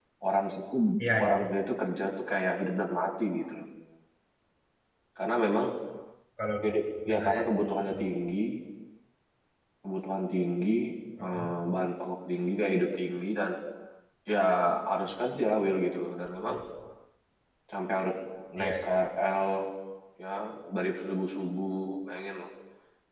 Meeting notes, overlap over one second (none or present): none